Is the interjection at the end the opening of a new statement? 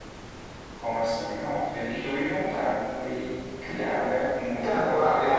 Yes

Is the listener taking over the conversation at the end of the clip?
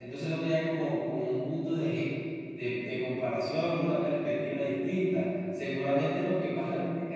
No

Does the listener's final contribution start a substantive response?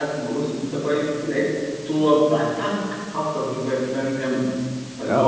Yes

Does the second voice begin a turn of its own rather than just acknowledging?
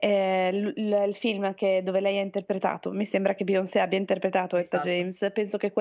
No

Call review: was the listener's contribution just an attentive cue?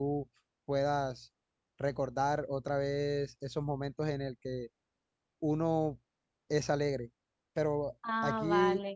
Yes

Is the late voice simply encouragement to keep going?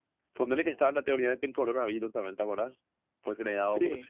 Yes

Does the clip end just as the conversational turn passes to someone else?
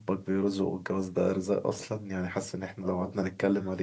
No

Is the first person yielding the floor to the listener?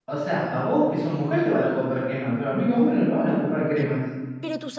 Yes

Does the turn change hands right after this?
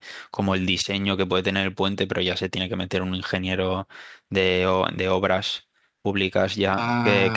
No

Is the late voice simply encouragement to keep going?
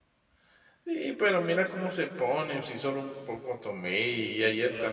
No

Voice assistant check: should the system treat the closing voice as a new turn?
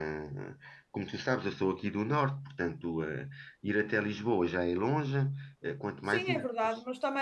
Yes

